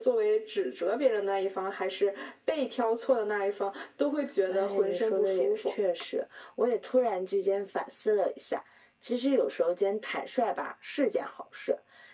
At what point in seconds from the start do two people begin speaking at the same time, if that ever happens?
4.5 s

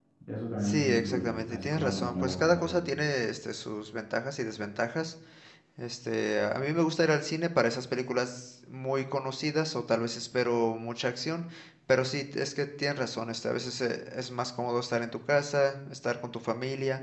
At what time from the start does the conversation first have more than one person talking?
0.6 s

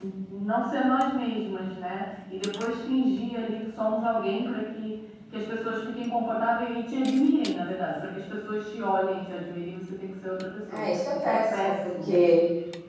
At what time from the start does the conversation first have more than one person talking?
10.7 s

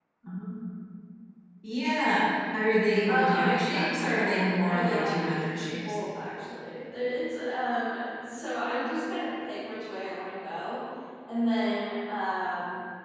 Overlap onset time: 3.1 s

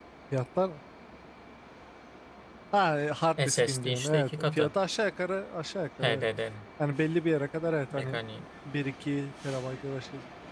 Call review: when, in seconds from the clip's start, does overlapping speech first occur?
3.5 s

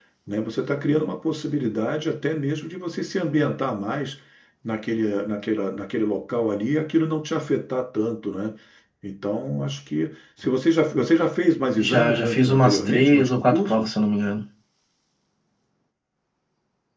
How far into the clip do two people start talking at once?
11.8 s

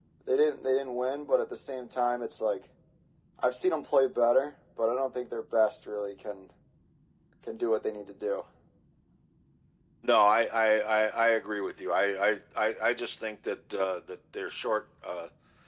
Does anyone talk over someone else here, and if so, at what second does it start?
none

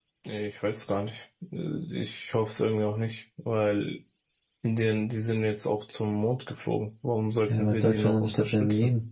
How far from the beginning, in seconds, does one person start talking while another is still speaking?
7.5 s

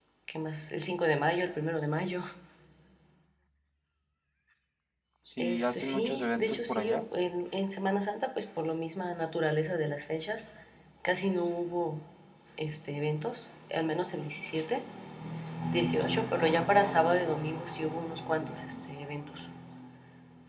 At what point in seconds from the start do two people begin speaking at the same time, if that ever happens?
5.4 s

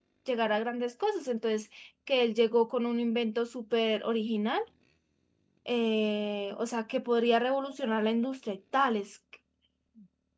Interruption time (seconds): none

